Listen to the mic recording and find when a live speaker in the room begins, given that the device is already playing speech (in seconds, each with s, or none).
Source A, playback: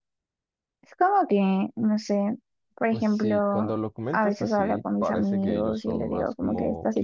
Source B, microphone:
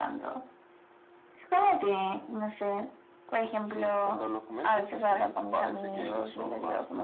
none